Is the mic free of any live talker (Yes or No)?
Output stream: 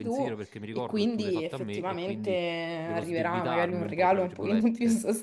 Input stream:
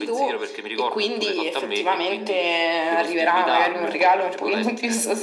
Yes